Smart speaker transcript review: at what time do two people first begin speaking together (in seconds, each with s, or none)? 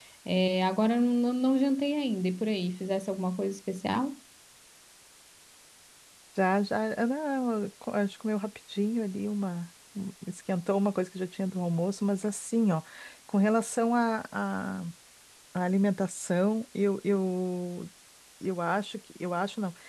none